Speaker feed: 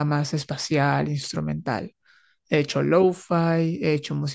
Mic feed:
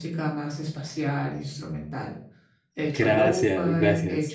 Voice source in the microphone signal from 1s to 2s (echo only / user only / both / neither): echo only